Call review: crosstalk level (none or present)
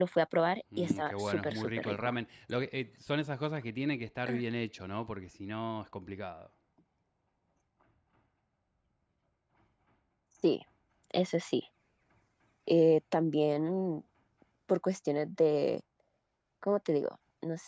present